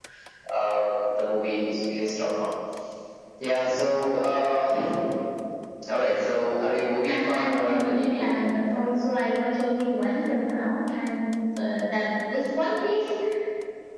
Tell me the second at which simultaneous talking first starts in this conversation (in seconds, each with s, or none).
7.0 s